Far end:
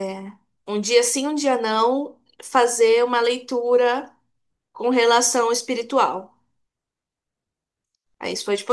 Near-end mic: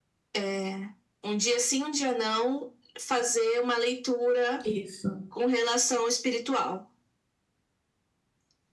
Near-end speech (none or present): present